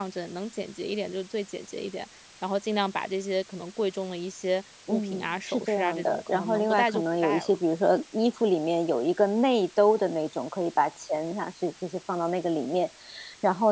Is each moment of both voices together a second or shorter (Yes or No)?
No